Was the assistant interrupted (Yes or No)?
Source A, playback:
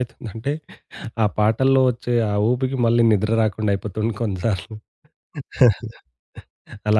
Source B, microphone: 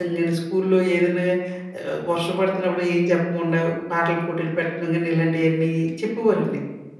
Yes